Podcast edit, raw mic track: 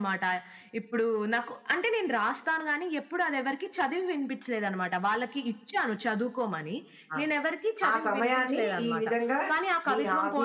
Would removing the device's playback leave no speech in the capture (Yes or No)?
No